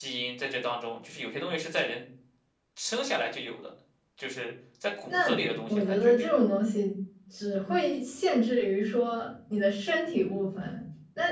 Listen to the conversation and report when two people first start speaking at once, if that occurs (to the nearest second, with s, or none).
5 s